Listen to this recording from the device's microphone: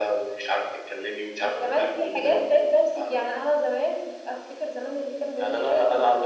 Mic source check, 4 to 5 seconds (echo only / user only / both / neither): echo only